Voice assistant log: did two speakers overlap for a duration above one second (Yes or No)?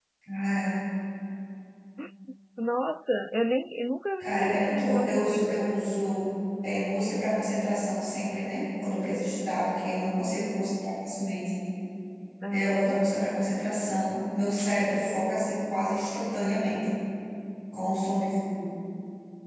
Yes